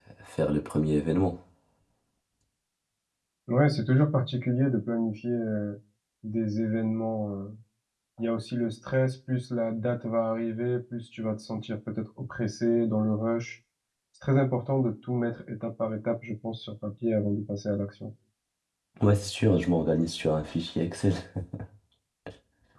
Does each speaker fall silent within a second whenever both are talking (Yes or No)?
Yes